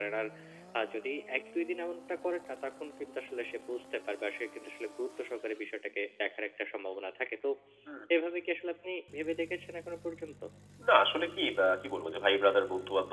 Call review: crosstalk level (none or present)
none